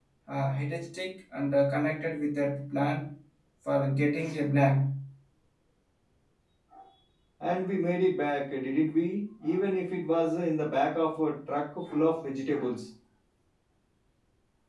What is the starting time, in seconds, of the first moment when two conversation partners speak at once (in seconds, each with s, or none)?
none